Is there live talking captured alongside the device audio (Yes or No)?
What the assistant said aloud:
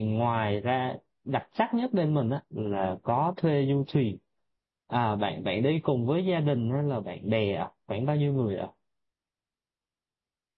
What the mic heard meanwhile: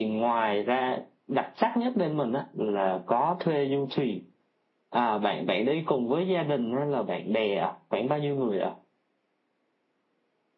No